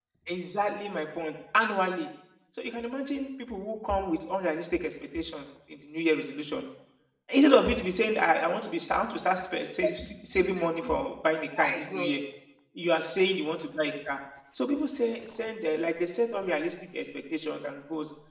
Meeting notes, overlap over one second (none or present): present